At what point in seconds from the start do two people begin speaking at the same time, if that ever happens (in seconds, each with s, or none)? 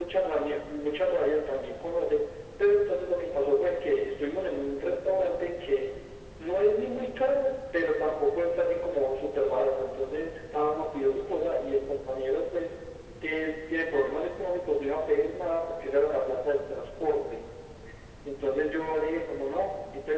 none